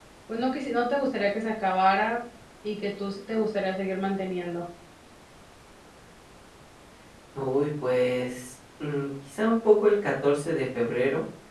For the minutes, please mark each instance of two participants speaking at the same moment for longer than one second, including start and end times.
none

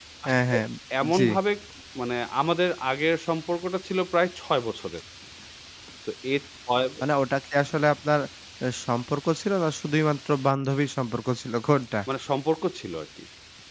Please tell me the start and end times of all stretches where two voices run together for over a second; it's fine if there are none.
none

